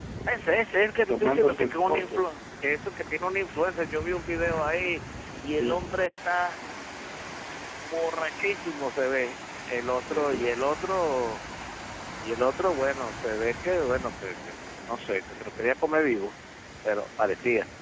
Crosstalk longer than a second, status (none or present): present